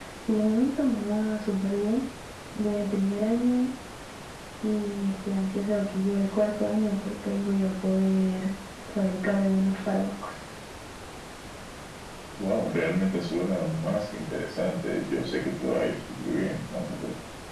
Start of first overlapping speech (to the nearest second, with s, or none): none